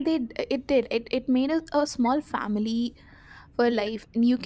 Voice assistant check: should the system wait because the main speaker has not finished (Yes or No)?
Yes